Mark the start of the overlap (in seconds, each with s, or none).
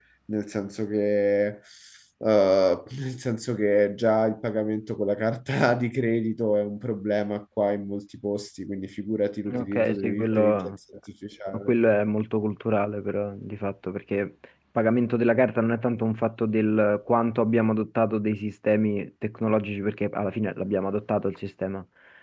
9.5 s